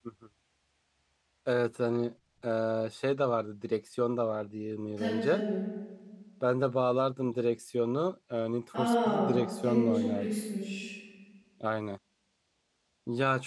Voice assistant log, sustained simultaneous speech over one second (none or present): present